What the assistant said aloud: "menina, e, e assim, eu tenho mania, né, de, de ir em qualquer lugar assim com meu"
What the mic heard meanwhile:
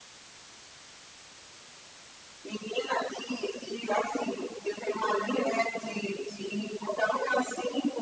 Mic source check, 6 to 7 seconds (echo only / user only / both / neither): echo only